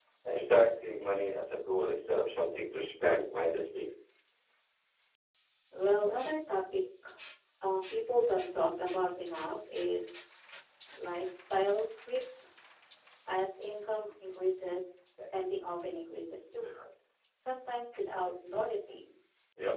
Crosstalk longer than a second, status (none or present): none